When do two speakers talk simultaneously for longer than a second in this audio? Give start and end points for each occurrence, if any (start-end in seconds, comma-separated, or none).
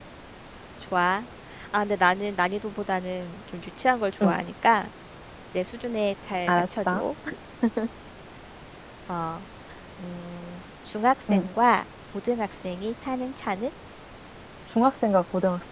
none